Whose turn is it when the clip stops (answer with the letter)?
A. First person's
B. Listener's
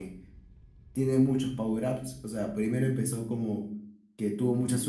A